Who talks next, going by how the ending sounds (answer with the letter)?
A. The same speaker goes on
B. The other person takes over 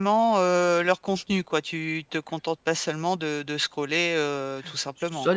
B